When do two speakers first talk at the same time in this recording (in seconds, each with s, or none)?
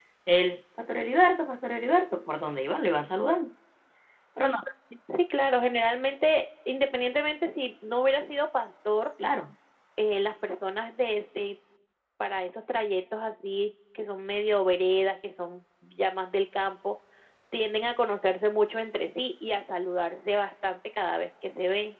none